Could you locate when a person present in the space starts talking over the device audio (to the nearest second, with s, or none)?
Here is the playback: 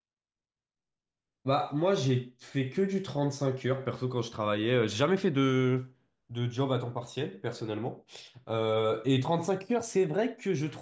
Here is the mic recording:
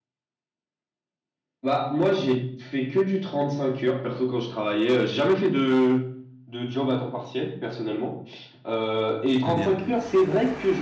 9 s